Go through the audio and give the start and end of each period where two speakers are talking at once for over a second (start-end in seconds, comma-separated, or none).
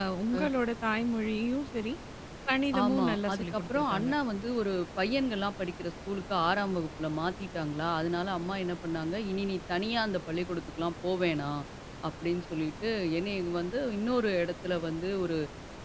2.8-4.1